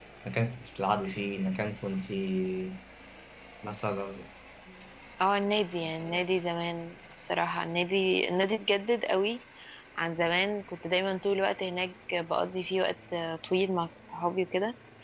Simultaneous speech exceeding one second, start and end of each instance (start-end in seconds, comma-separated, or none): none